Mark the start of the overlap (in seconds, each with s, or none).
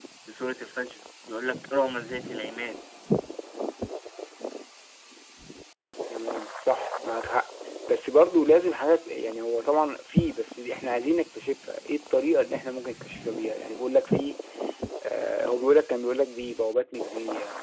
none